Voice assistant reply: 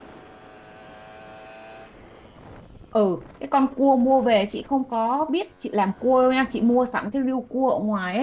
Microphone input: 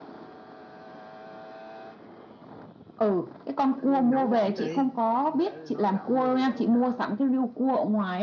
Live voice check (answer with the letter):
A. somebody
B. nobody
A